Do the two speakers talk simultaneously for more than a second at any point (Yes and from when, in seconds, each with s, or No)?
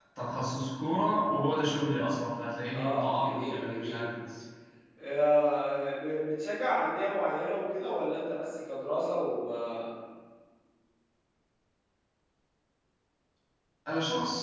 Yes, from 2.7 s